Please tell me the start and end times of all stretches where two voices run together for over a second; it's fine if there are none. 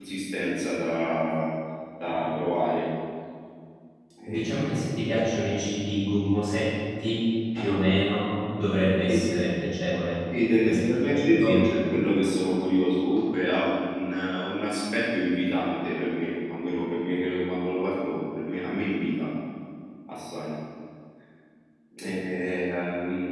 10.6-12.1

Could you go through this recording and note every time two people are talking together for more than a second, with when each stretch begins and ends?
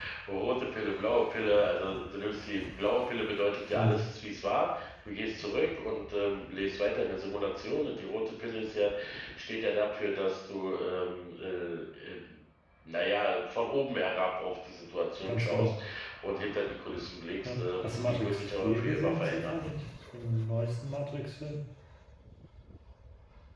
17.4-19.6

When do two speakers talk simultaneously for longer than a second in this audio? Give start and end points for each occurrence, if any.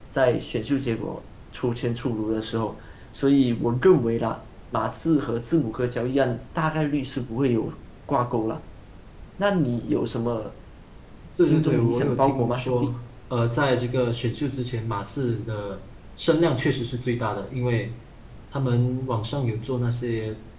11.4-12.9

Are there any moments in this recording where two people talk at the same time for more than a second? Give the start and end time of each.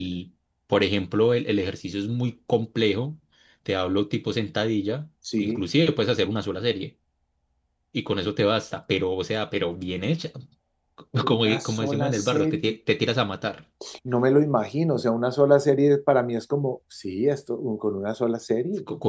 11.3-12.7

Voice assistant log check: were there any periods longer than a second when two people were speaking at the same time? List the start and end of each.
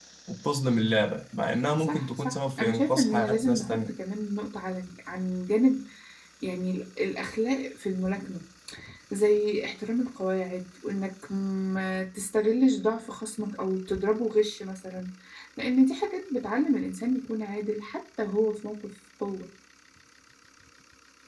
1.8-4.0

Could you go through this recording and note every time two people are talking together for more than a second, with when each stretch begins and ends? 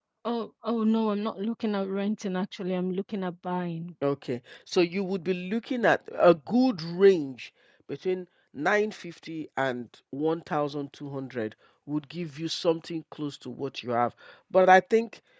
none

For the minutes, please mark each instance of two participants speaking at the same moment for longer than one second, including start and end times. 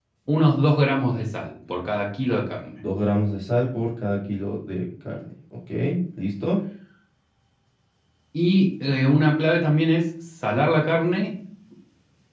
none

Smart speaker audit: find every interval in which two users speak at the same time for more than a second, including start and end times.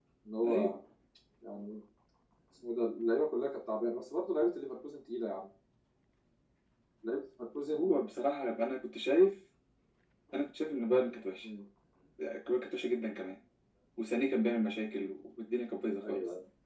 none

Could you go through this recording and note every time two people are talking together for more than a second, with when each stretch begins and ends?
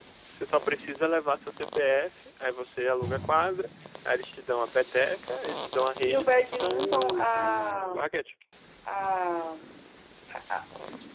6.0-8.0

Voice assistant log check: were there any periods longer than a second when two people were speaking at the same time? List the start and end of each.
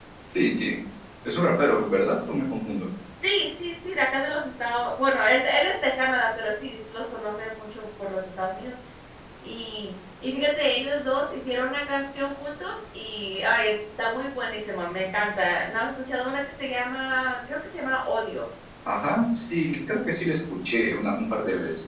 none

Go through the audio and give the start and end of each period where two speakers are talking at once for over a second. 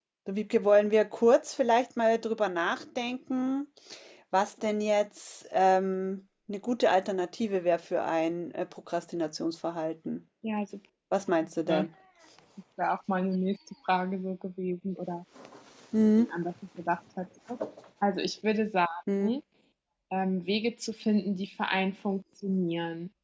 none

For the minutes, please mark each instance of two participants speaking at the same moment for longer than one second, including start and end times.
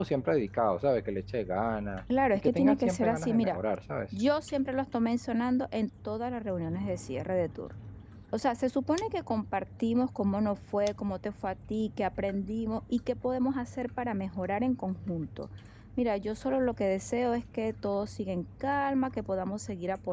2.3-3.6

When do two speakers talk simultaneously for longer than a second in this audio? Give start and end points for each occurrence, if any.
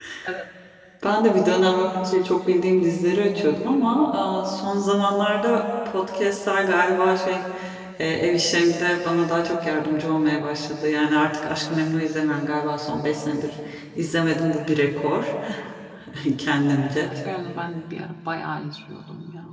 none

